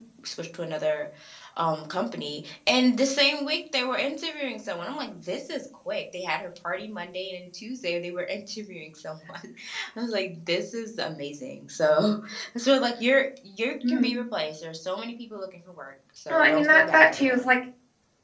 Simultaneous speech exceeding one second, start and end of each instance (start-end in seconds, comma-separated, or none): 16.3-17.5